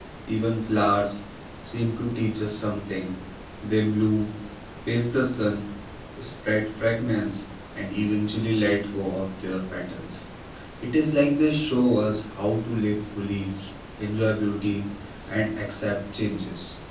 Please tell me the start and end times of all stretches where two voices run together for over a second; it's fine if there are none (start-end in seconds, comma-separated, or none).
none